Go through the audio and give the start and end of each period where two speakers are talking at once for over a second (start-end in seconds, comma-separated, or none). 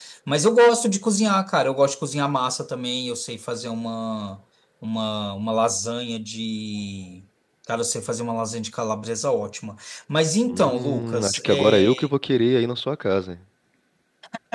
10.5-11.8